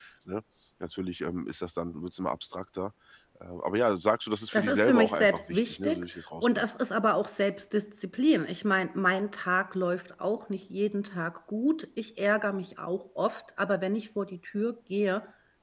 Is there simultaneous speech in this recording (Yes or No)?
Yes